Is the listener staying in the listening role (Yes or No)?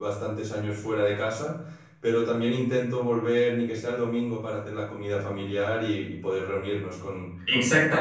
Yes